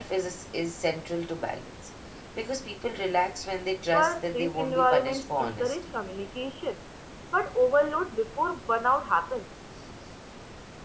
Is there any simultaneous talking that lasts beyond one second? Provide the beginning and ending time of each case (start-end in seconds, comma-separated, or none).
3.9-5.9